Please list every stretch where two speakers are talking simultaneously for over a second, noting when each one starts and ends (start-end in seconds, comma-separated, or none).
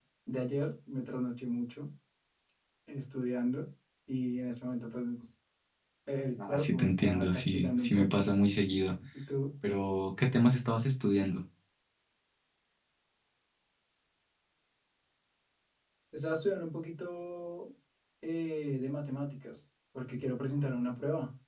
6.4-8.2